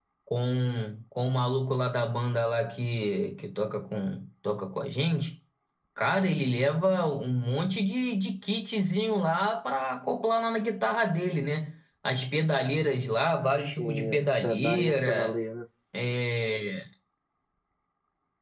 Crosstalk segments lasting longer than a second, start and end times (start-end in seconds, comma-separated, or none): 13.8-15.4